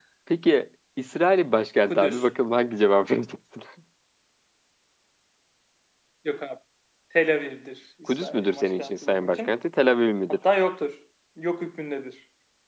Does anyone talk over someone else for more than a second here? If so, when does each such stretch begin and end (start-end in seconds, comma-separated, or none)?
8.1-9.5